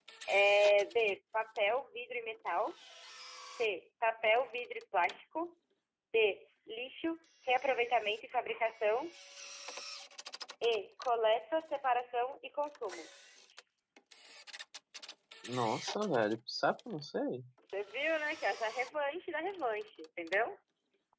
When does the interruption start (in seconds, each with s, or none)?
none